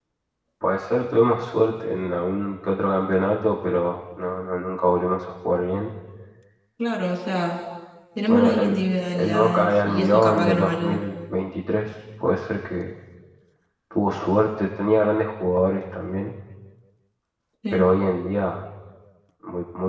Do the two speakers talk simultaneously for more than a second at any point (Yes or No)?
Yes